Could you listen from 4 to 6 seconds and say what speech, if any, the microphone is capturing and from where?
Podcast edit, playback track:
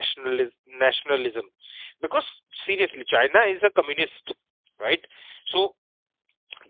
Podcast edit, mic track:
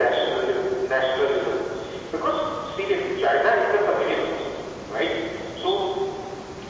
echo only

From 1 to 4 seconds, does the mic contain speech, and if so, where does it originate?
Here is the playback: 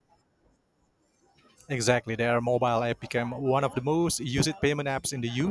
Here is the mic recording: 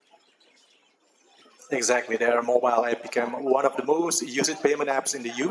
echo only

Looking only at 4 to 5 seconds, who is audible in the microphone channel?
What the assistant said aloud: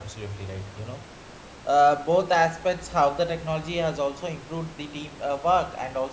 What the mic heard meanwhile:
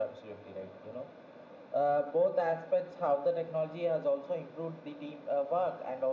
echo only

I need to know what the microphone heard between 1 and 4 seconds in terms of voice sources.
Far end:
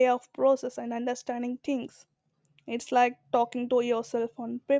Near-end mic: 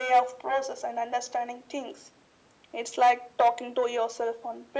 echo only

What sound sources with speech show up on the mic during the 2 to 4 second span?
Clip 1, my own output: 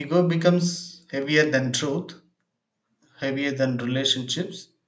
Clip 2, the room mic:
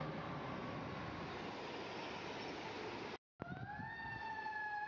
neither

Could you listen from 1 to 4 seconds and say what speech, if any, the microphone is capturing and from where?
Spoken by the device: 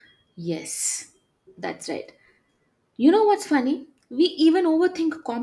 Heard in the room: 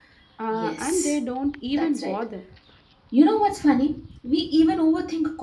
both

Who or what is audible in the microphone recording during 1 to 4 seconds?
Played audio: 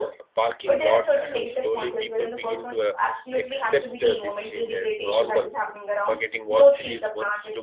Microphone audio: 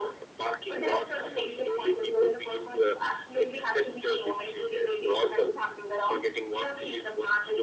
echo only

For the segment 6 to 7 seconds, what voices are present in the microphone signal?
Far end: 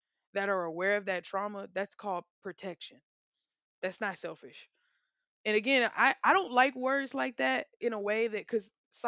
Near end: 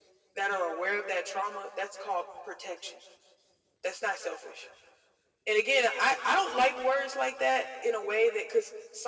echo only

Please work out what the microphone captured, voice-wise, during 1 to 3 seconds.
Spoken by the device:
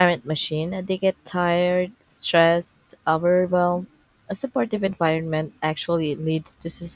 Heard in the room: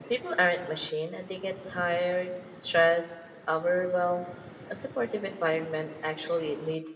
echo only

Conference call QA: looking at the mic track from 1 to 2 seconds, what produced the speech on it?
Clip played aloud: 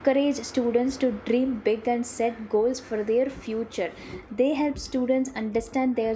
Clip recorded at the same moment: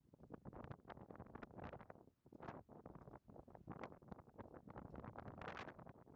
neither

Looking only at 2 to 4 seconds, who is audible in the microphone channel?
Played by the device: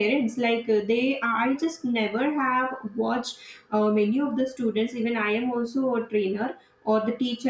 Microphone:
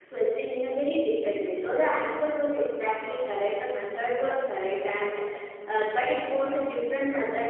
user only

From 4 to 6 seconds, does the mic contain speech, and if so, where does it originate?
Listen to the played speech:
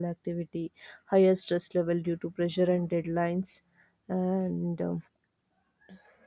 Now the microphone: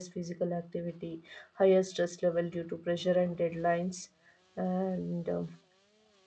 echo only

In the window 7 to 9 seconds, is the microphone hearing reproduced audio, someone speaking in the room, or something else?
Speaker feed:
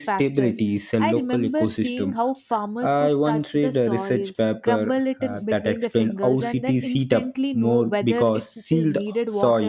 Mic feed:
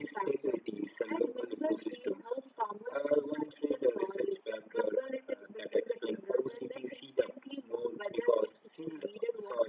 echo only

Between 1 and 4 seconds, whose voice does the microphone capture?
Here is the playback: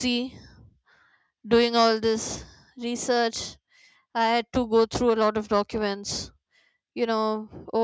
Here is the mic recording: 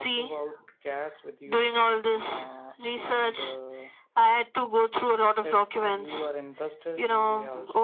both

